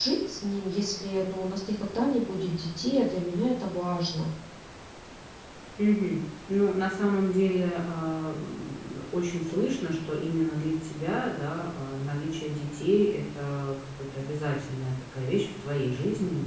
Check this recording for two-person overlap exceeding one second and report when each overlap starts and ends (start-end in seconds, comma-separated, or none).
none